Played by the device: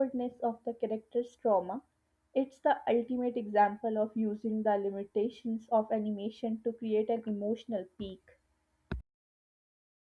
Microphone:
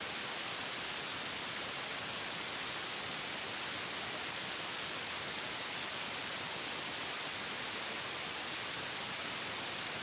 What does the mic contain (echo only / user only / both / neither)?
neither